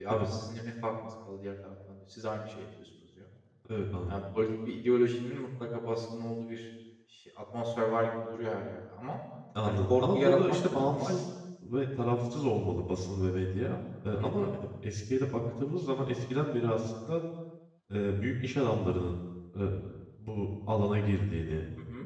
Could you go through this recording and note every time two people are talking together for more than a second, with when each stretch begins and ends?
9.6-11.1

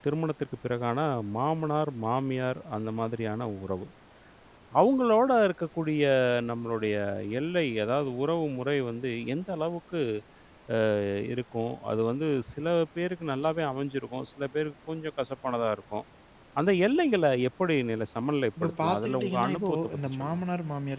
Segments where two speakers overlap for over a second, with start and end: 18.6-20.4

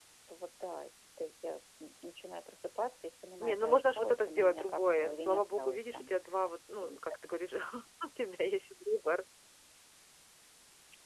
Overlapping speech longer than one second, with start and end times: 3.4-6.1

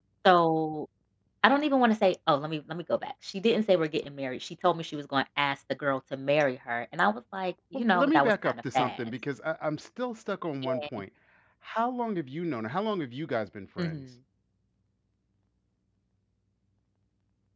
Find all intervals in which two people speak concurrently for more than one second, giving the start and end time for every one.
7.7-9.0

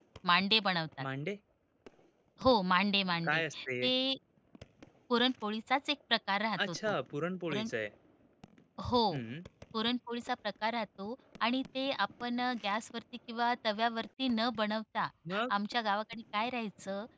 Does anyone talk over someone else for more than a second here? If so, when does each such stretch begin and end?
none

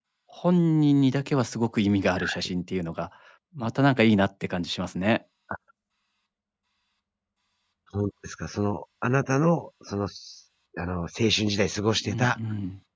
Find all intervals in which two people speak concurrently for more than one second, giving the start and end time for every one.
none

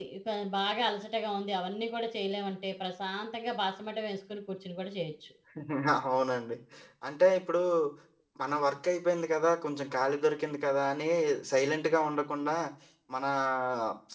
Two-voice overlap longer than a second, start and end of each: none

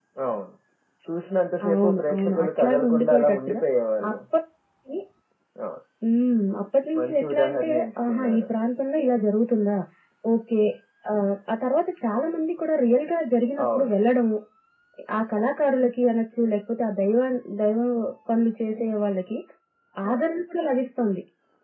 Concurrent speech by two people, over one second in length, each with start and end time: 1.7-3.6, 7.0-8.5

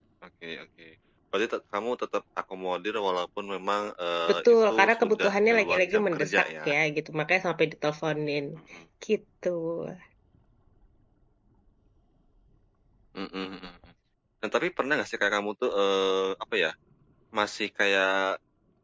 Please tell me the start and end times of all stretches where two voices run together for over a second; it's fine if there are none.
4.3-6.8

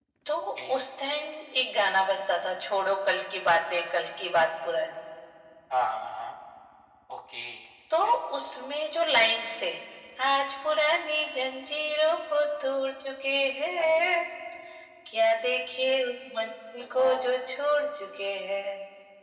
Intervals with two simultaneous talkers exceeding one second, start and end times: none

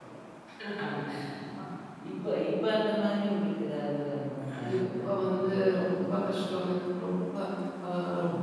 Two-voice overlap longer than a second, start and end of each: 4.7-6.3

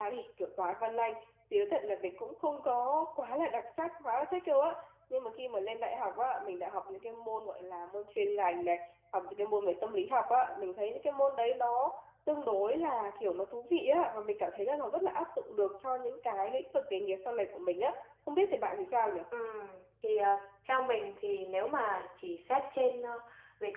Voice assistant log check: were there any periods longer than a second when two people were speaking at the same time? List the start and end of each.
none

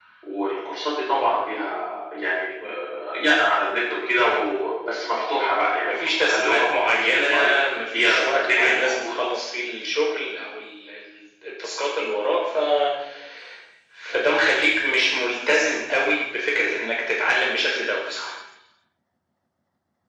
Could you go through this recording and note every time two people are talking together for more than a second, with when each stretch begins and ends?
5.8-7.3, 8.0-9.3

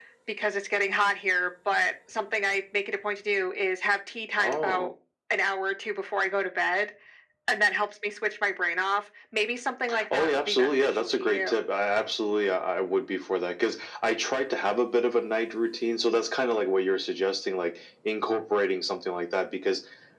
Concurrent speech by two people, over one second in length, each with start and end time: 10.1-11.5

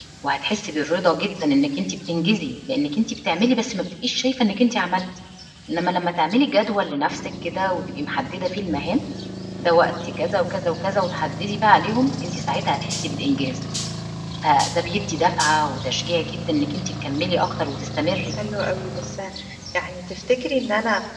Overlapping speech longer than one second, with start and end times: none

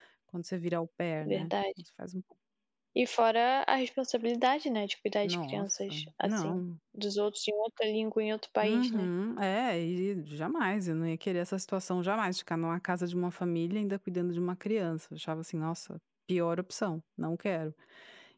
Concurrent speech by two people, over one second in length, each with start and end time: 5.2-6.6

